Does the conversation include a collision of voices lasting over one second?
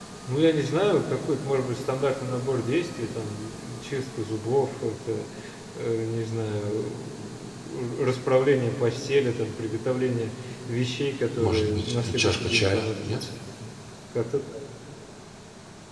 Yes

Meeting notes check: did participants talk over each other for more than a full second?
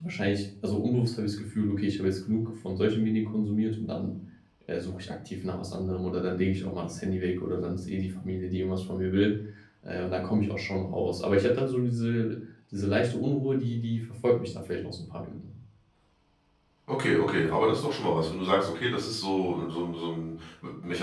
No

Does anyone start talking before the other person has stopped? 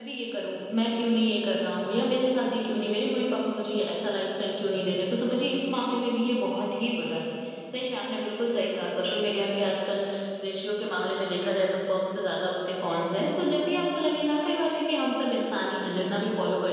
No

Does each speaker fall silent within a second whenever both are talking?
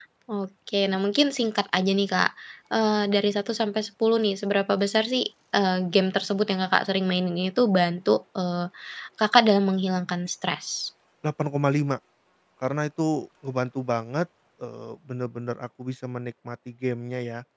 Yes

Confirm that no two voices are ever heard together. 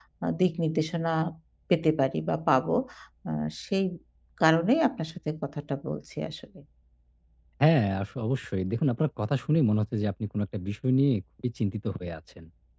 Yes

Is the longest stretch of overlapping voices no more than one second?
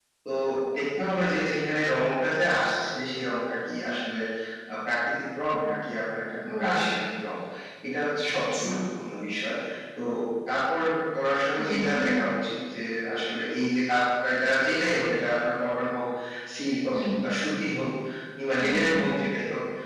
Yes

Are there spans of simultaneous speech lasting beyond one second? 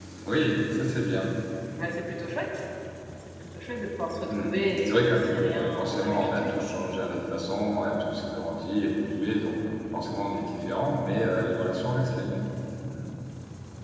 Yes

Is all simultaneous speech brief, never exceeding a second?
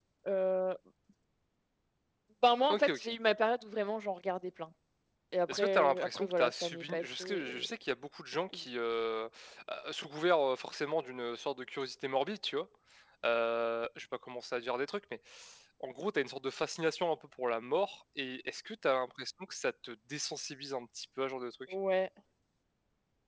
No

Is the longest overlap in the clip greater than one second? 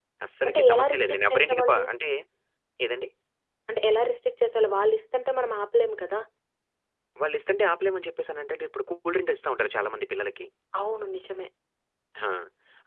Yes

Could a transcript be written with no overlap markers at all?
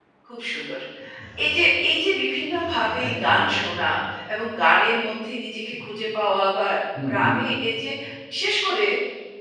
No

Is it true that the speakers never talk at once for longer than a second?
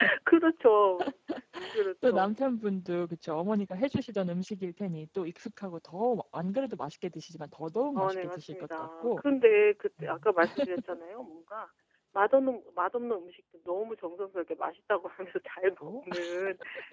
No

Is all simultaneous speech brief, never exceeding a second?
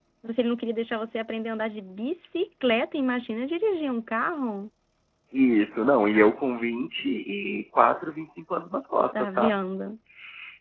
Yes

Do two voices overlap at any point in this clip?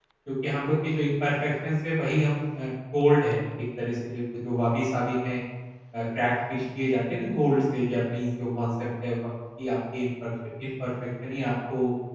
No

